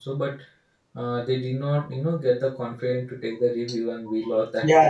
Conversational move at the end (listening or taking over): taking over